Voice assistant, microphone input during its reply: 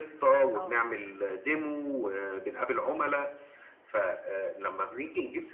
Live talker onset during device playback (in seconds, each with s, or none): 0.6 s